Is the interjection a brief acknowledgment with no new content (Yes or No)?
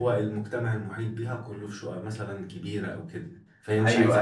Yes